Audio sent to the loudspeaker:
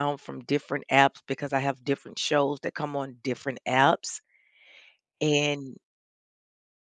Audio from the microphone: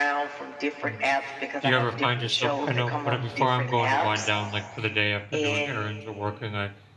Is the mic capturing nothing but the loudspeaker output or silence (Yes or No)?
No